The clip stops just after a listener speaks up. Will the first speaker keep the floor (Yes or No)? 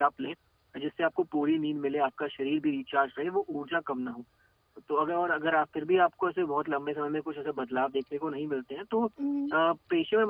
Yes